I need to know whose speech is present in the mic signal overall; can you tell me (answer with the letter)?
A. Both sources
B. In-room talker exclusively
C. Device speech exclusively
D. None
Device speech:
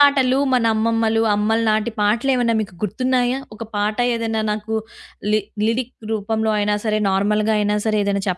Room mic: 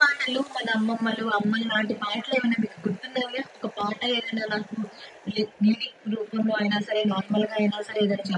C